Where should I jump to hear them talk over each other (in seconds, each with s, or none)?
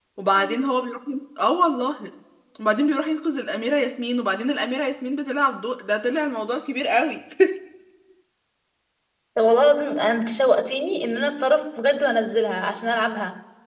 none